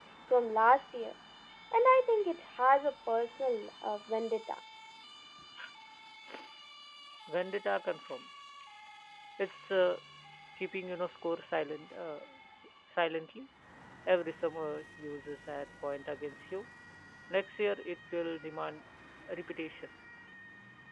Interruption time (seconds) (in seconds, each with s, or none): none